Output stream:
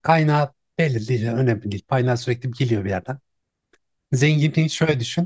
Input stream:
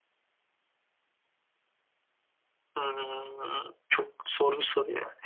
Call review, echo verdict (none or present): none